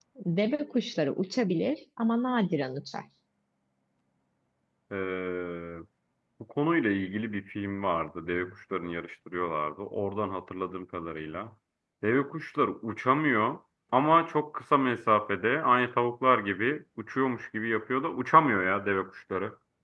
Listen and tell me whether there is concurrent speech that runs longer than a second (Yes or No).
No